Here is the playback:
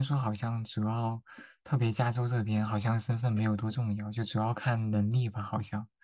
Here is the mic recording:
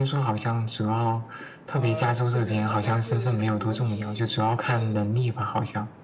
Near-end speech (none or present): present